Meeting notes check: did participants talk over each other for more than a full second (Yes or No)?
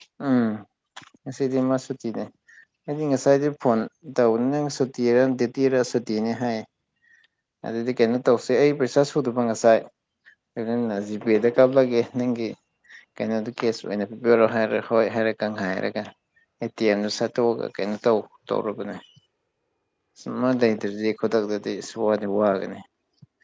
No